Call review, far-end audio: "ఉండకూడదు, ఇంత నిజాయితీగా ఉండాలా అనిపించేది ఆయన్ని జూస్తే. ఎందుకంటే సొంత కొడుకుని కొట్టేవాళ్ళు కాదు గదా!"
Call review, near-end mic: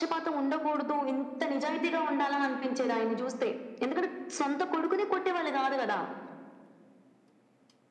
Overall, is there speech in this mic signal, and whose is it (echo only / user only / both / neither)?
echo only